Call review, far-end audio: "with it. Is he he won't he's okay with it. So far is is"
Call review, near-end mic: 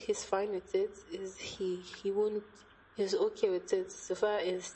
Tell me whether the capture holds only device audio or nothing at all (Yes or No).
Yes